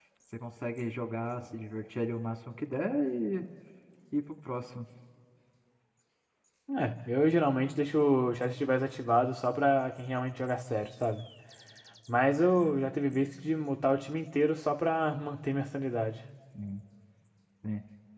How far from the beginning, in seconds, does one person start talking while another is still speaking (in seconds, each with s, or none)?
none